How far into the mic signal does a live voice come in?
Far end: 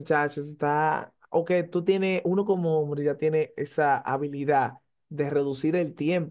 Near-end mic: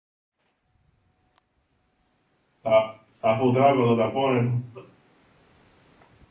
2.6 s

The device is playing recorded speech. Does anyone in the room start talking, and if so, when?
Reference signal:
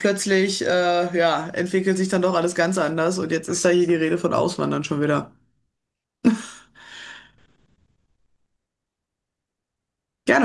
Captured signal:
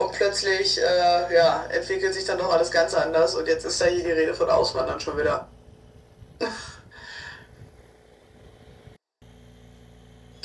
none

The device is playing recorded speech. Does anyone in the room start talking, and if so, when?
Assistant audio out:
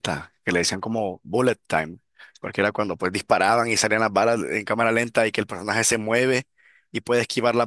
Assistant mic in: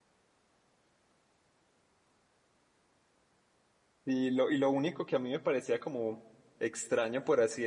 4.0 s

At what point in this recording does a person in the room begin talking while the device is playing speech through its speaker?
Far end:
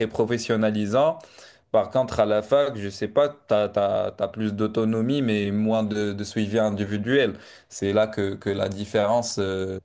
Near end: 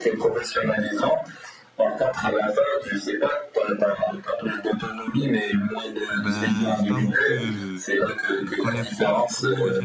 6.2 s

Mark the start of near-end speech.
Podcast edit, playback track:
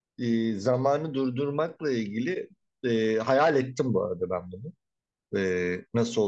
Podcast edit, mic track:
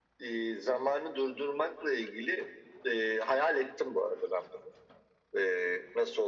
none

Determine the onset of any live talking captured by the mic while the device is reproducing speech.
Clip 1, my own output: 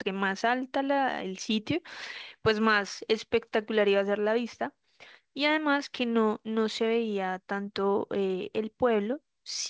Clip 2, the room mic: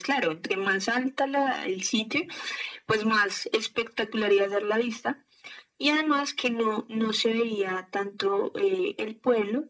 none

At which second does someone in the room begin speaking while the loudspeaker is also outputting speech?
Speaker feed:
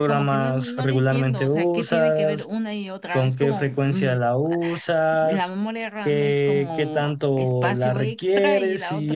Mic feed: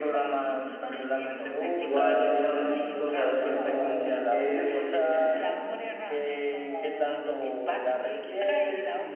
1.7 s

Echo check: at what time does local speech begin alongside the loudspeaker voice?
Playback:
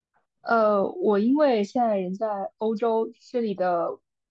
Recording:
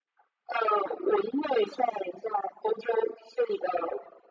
none

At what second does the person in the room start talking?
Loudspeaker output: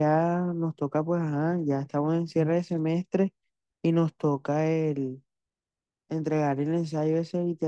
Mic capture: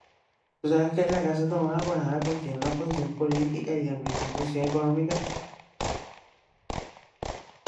0.6 s

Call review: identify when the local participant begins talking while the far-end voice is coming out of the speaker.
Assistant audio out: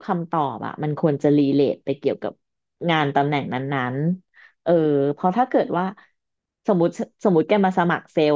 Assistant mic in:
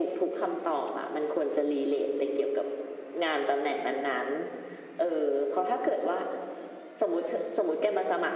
none

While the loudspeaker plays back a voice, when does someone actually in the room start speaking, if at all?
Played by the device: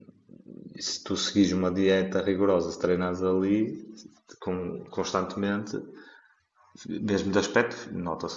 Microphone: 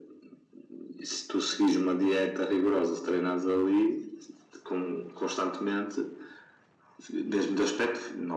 none

